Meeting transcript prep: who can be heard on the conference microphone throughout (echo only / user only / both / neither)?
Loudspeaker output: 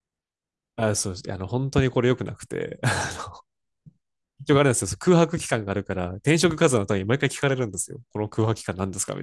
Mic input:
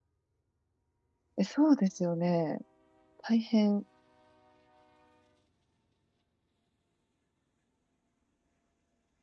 user only